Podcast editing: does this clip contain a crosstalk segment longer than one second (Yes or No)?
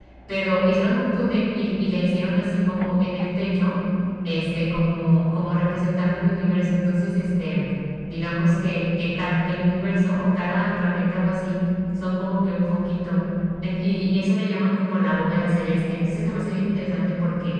No